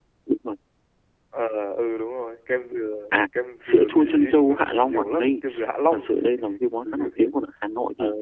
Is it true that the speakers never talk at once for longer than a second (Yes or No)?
No